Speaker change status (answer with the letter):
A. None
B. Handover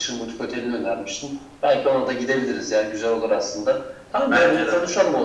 A